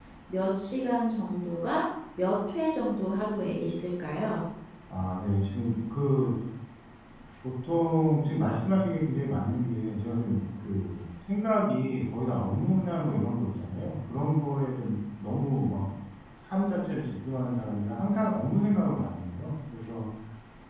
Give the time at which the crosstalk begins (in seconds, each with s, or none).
none